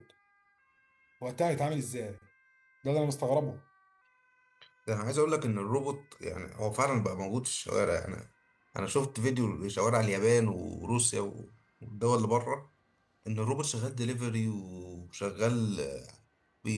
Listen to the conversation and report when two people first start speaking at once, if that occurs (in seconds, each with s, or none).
none